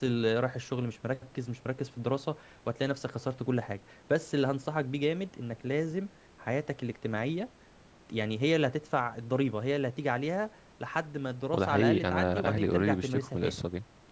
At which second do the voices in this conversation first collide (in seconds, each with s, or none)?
11.5 s